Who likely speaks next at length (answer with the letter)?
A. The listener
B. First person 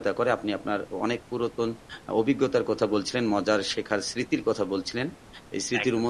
B